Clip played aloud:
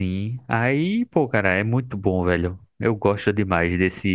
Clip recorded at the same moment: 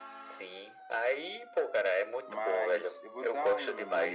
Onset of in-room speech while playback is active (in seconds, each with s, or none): 2.2 s